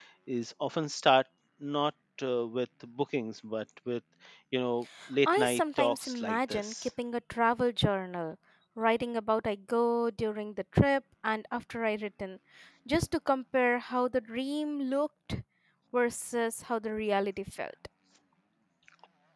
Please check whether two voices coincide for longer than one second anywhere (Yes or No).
Yes